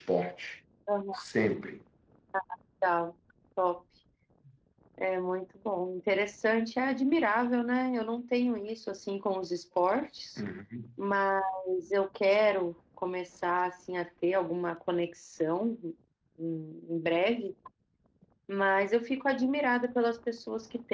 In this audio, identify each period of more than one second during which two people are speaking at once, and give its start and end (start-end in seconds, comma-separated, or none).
none